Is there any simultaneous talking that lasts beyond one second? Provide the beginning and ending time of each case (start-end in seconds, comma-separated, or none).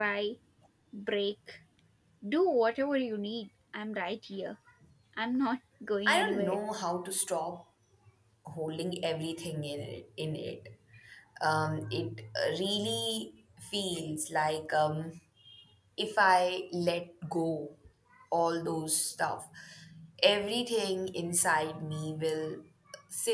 none